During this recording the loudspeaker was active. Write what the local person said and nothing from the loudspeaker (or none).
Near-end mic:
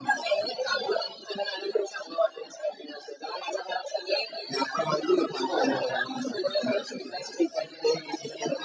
हो, हो.